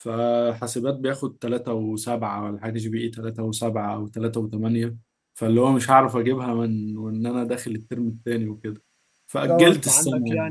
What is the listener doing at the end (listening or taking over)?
taking over